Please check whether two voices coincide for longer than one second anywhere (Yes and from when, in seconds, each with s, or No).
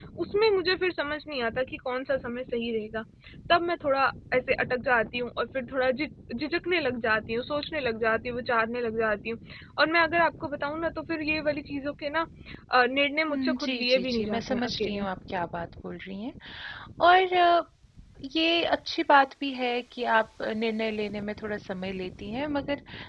Yes, from 13.3 s